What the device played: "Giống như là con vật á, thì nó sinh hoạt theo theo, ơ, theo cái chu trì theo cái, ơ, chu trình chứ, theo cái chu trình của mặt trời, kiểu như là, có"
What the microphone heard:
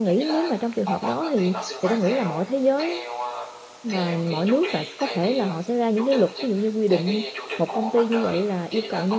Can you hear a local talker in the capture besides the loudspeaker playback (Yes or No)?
Yes